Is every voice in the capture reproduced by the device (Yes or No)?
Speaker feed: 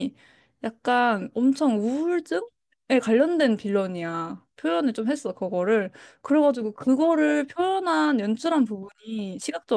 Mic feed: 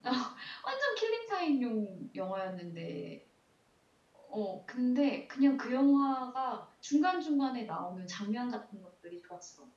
No